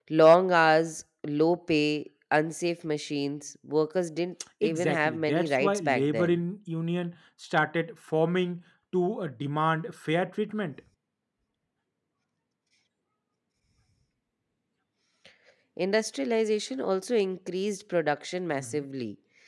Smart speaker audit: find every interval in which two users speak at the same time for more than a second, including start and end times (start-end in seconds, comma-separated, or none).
4.6-6.4